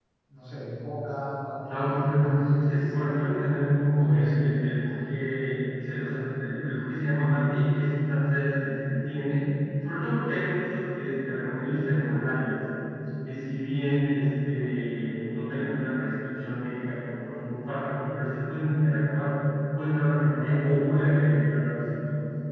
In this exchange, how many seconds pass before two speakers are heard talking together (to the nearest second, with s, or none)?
2 s